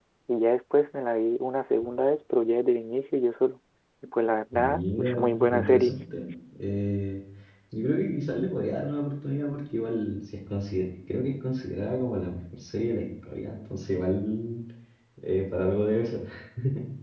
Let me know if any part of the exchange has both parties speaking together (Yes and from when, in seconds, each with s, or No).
Yes, from 4.5 s